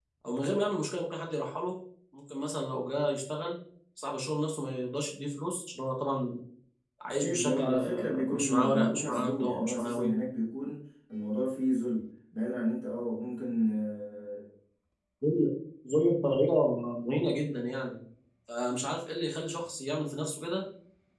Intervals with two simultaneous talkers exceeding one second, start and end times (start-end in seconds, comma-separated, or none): 7.2-10.1